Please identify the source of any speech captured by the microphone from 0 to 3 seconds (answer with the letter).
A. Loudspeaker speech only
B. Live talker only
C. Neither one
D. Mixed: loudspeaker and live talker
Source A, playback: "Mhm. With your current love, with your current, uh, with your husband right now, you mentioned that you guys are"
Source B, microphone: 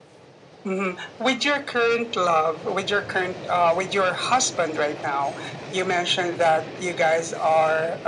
A